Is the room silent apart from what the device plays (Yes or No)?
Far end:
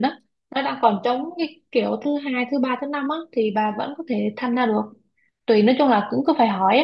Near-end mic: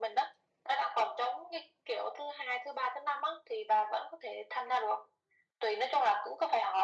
Yes